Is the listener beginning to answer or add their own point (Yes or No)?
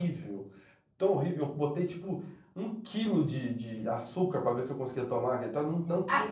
Yes